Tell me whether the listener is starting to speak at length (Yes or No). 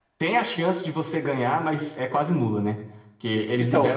No